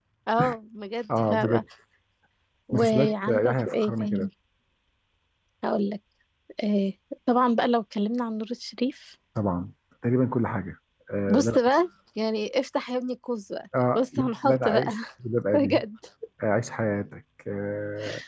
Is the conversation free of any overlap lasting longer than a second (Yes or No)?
No